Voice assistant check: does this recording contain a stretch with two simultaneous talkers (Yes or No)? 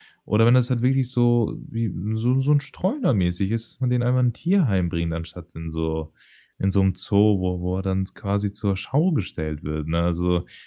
No